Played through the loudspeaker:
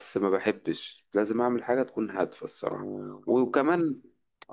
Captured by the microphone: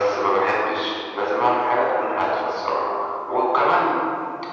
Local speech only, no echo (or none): none